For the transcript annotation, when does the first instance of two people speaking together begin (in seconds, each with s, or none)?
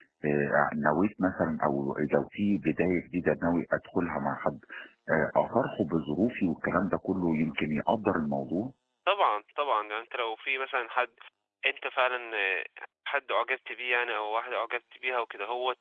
none